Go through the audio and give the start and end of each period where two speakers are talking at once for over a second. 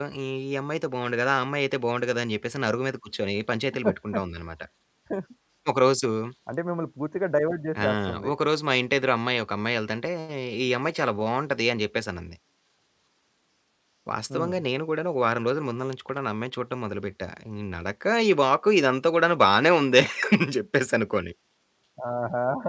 none

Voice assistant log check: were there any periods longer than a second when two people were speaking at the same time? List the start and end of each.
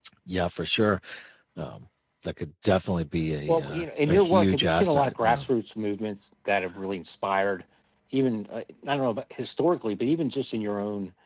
3.5-5.5

